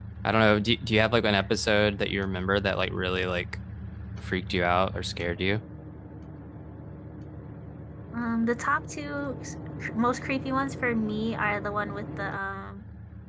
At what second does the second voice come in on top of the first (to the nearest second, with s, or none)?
none